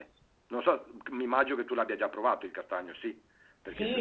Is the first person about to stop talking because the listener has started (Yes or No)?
Yes